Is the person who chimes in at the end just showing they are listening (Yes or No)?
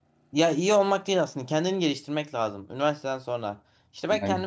Yes